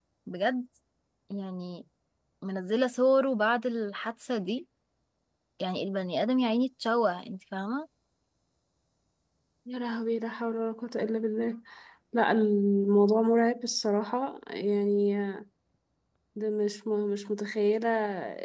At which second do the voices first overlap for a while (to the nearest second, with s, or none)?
none